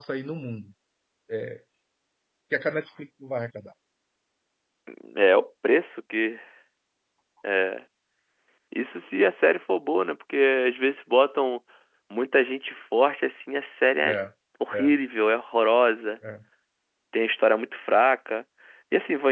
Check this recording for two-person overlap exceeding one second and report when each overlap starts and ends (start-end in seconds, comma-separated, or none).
none